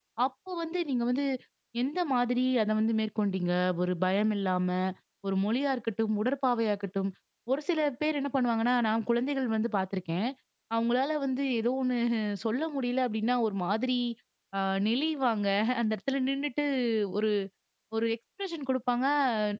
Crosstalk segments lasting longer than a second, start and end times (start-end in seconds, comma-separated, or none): none